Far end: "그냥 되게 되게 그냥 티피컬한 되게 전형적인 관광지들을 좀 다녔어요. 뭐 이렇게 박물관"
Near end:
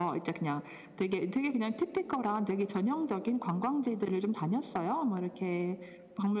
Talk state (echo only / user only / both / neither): echo only